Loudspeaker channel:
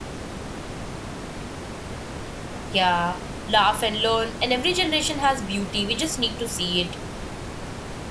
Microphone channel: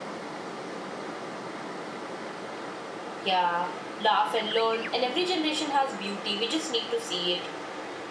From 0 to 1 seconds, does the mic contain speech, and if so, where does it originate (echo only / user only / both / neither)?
neither